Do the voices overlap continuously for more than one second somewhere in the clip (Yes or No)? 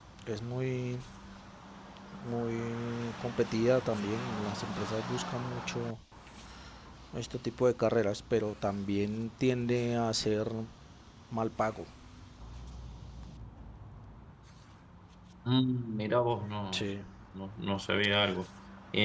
No